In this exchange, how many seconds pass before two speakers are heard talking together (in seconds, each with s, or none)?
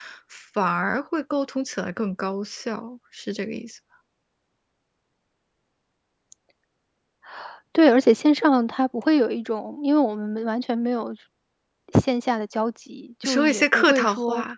13.2 s